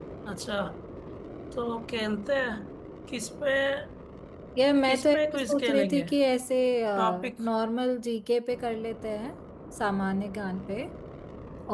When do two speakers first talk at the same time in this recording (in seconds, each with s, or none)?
4.8 s